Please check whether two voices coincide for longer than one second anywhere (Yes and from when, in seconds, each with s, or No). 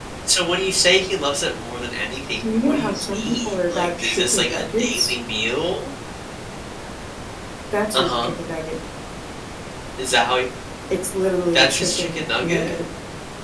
Yes, from 2.4 s